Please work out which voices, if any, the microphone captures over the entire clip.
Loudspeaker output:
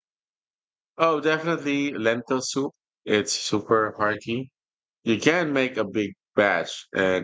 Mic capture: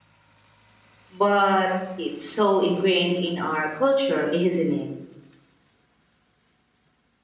user only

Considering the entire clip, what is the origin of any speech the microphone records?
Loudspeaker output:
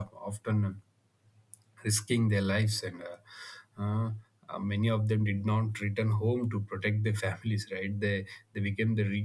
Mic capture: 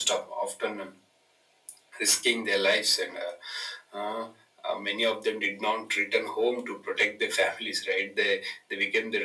echo only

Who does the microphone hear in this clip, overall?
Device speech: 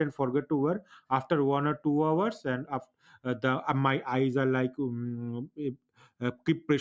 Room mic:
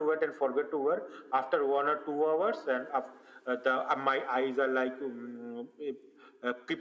echo only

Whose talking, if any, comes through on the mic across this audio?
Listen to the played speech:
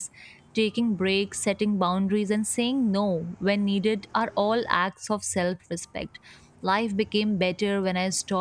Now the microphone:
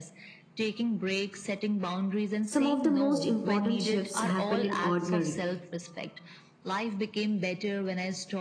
both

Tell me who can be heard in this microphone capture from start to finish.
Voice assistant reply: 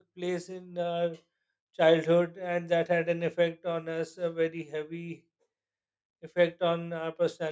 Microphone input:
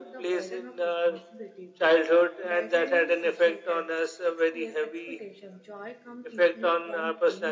both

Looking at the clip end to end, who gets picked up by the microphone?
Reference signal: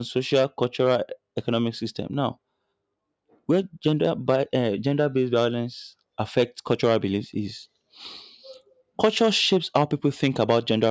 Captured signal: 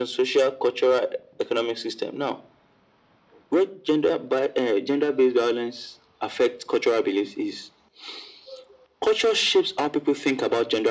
echo only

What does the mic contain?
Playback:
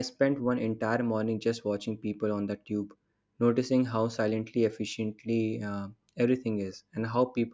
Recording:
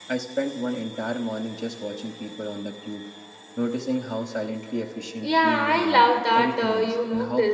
both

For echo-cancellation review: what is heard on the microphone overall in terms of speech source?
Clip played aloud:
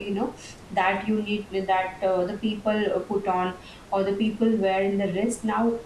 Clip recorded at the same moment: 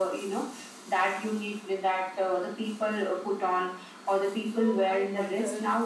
both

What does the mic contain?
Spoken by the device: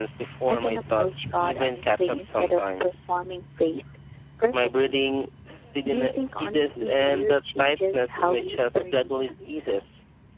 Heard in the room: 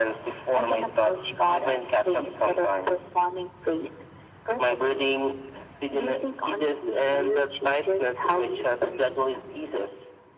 echo only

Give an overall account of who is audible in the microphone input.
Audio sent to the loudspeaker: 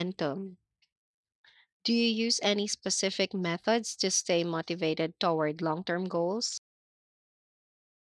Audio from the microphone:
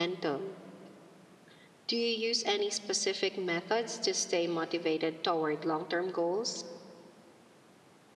echo only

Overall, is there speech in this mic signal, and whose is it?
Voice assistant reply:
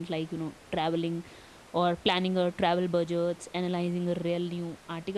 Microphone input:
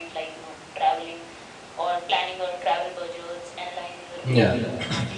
both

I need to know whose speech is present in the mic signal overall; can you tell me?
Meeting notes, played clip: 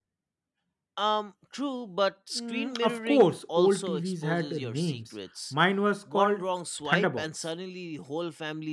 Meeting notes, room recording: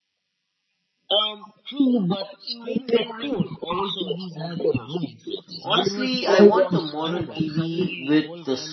both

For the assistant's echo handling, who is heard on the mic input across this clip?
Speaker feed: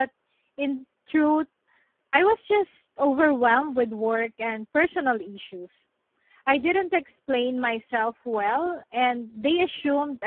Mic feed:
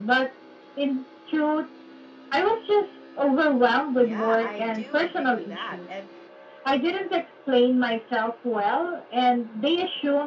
both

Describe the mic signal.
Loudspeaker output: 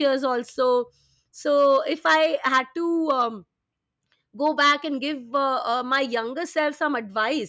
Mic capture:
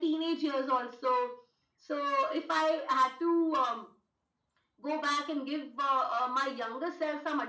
echo only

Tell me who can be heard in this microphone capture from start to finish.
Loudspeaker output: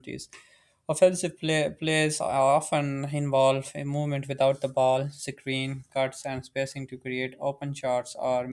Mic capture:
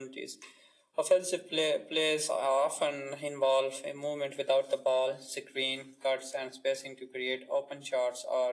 echo only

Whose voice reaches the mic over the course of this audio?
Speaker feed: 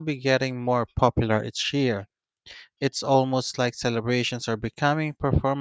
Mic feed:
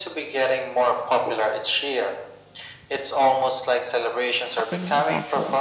both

